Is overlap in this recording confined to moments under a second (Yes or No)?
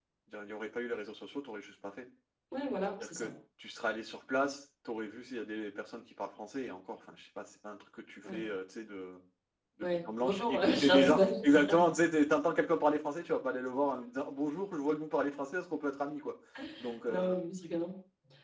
No